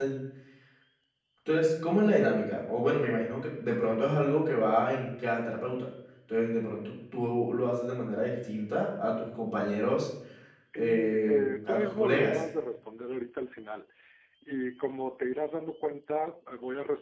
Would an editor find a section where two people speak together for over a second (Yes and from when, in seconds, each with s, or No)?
Yes, from 10.8 s